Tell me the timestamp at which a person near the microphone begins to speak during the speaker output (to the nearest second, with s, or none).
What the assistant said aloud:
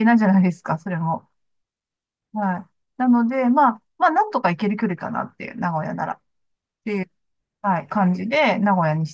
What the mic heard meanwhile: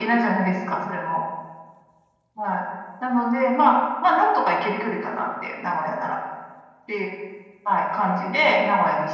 none